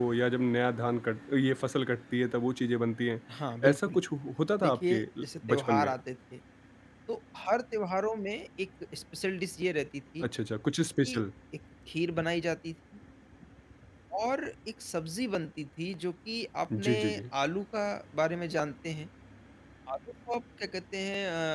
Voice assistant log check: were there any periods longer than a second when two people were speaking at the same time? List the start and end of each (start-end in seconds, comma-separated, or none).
4.6-5.9